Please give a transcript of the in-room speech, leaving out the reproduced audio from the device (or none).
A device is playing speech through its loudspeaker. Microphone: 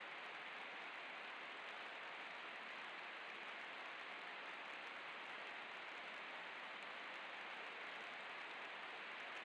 none